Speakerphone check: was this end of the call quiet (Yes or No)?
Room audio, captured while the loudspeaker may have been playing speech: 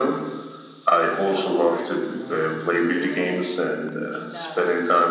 No